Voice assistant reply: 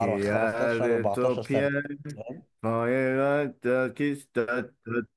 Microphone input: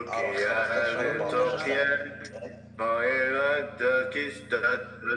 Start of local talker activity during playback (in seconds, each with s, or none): 0.7 s